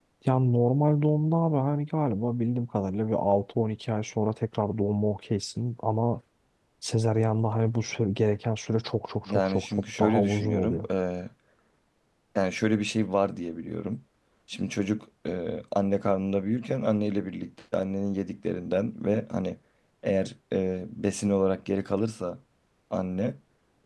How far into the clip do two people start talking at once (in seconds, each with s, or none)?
9.3 s